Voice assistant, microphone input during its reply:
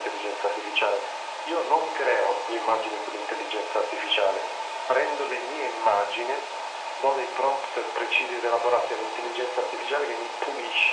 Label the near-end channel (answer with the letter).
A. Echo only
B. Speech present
A